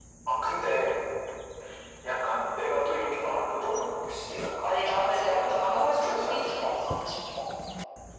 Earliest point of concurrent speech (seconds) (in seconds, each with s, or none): 4.6 s